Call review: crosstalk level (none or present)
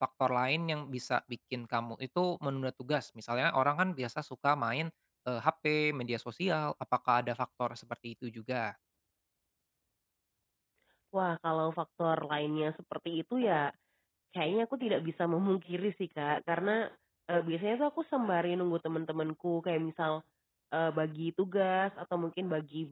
none